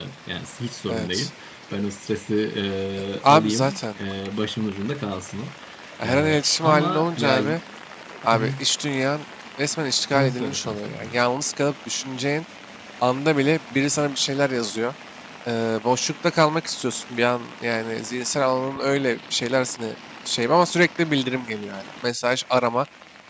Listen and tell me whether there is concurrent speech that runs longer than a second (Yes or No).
Yes